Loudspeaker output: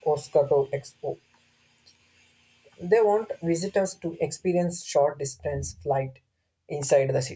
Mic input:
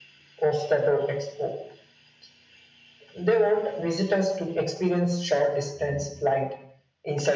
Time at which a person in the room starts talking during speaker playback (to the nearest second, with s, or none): none